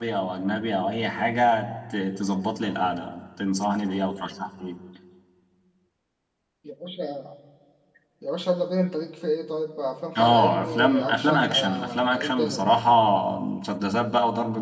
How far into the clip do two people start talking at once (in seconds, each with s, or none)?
10.2 s